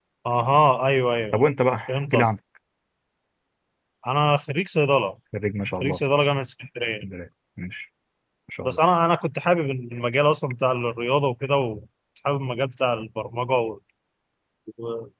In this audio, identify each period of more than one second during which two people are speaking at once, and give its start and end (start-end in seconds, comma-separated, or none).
none